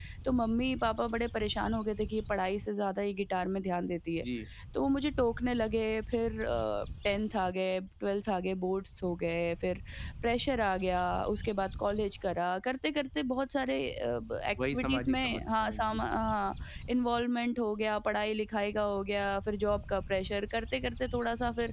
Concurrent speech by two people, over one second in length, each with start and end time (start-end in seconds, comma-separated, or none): 14.7-16.0